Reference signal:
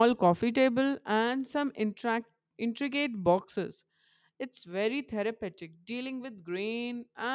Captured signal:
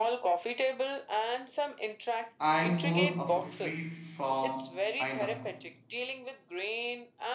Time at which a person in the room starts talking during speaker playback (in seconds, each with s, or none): 2.4 s